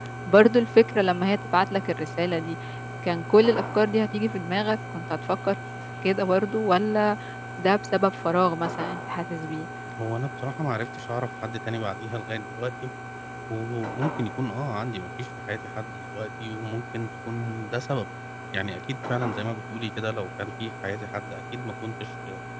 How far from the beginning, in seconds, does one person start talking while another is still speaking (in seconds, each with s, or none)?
none